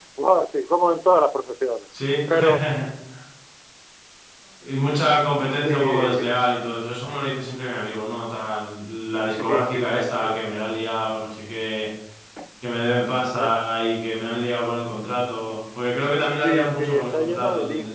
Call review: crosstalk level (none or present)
present